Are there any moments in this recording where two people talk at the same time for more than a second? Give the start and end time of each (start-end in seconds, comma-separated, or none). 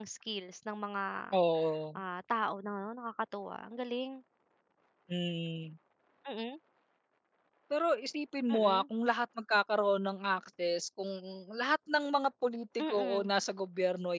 none